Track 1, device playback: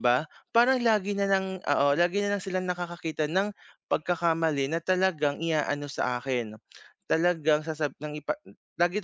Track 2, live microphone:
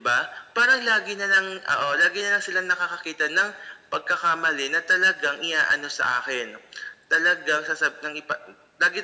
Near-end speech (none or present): none